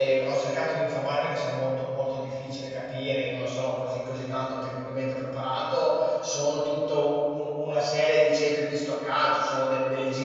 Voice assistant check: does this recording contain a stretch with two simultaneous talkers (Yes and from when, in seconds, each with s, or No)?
No